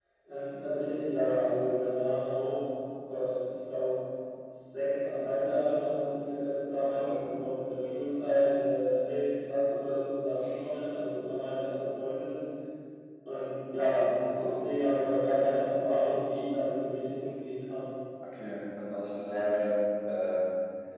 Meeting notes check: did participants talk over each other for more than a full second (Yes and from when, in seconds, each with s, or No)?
No